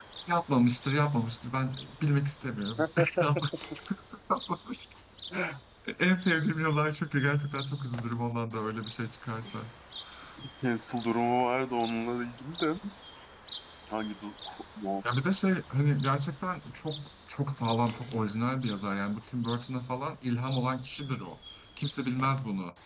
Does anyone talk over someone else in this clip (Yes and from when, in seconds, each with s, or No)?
No